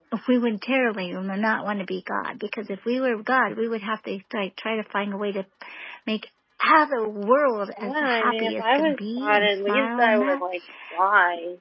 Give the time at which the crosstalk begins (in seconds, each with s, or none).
7.8 s